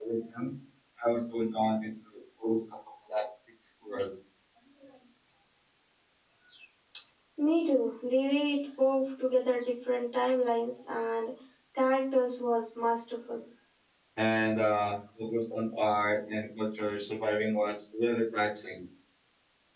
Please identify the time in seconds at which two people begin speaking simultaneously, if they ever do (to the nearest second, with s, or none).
none